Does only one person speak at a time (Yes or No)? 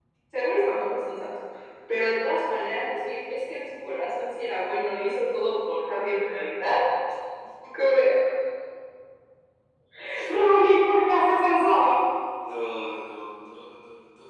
Yes